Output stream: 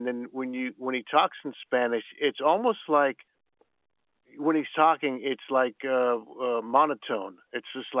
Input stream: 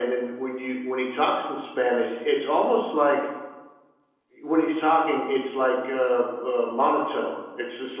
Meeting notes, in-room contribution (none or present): none